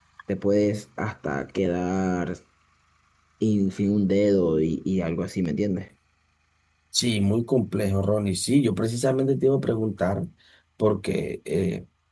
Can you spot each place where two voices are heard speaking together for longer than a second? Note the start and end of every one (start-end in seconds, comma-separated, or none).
none